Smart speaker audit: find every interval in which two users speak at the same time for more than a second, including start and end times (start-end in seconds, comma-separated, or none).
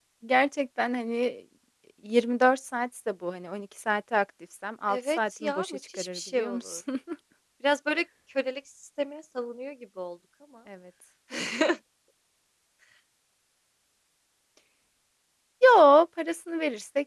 4.9-6.8